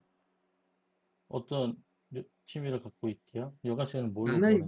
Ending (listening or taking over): taking over